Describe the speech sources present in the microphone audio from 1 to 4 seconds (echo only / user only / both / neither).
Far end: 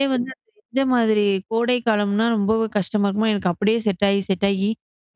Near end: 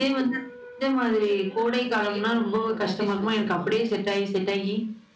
both